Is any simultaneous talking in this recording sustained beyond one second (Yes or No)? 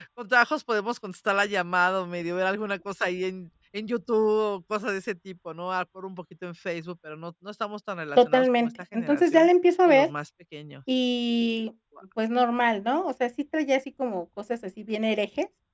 Yes